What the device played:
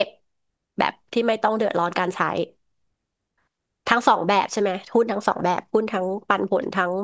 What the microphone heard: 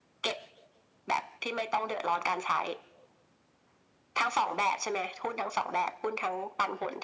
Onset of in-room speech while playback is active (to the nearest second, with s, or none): none